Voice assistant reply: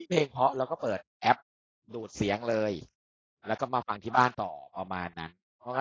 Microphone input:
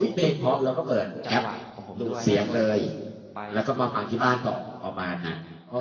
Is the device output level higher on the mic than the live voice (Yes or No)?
Yes